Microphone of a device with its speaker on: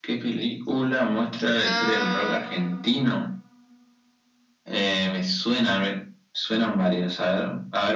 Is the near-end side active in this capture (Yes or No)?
Yes